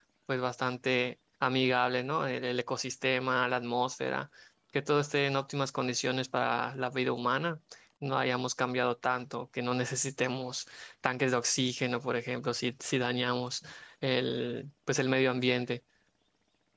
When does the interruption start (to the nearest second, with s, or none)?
none